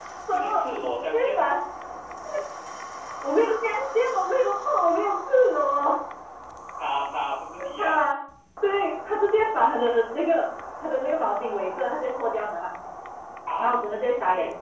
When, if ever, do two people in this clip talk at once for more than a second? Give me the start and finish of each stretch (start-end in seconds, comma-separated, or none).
none